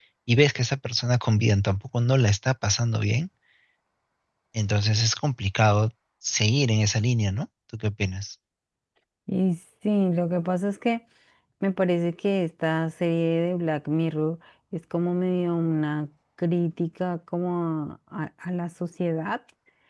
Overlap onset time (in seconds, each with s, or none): none